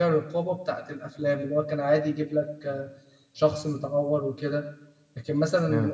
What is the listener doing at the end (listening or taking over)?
listening